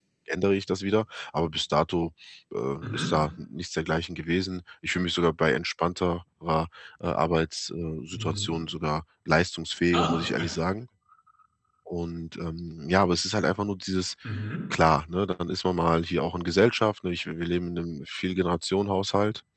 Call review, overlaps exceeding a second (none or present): none